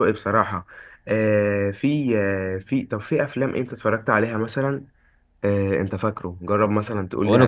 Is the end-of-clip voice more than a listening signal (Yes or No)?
Yes